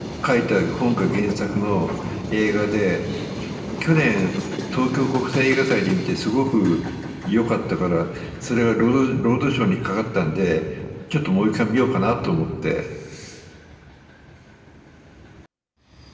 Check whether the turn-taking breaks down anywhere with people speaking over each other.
No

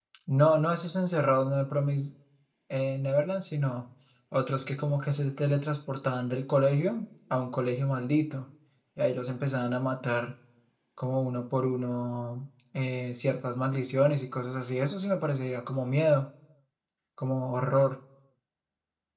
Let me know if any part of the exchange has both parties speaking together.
No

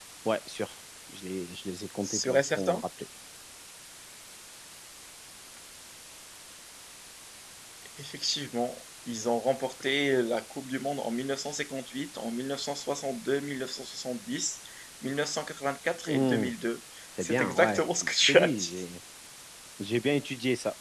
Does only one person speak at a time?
No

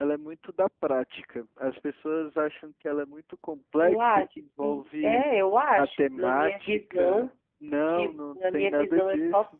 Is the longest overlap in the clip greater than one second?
Yes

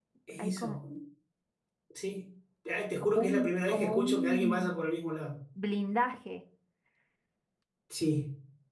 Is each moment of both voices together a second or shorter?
No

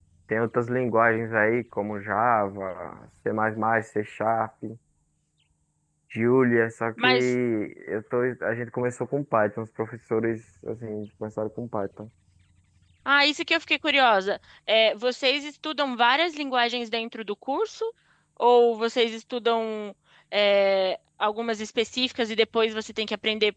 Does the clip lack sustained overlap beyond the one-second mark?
Yes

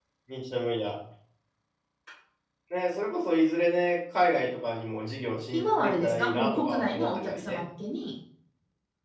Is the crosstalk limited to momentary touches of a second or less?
No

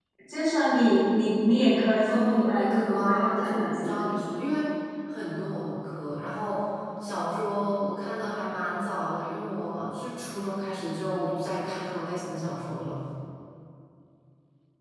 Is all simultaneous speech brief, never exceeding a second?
No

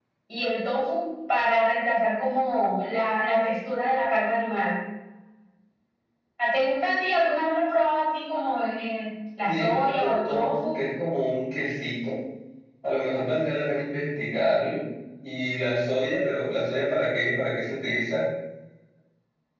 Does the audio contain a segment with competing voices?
Yes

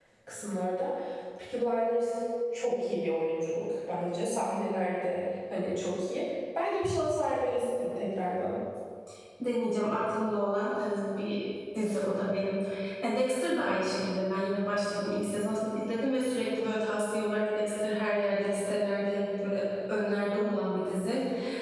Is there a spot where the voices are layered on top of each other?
No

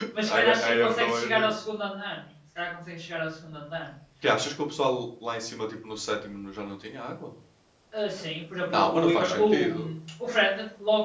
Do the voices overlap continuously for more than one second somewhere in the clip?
Yes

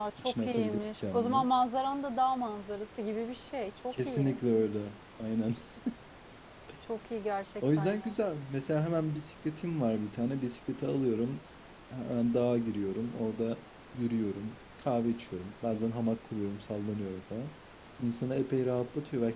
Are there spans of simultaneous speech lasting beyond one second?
Yes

